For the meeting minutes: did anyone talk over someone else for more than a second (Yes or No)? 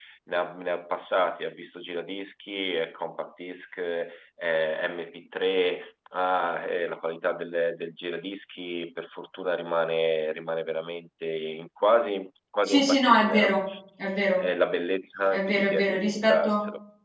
Yes